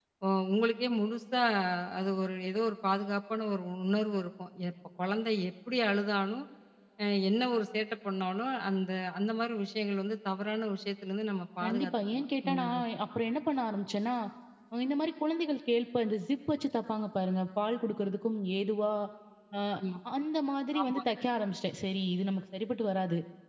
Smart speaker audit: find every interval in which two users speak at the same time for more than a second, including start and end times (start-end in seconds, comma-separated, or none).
11.6-12.8